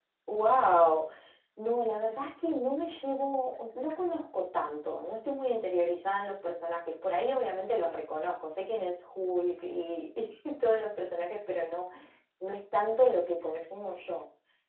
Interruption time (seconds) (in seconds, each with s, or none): none